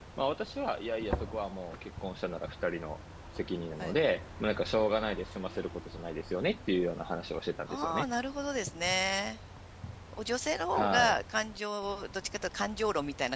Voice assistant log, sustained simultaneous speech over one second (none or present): none